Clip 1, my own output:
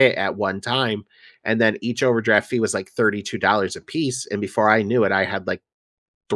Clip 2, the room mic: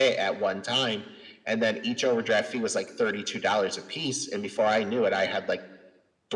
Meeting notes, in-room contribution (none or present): none